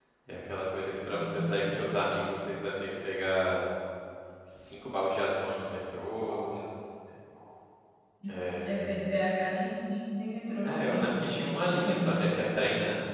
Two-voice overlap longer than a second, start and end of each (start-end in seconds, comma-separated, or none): 10.6-12.1